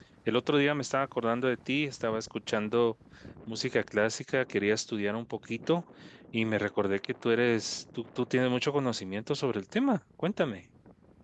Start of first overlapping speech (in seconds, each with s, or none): none